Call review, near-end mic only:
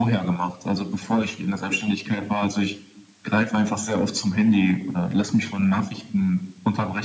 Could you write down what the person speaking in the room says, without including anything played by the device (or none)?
none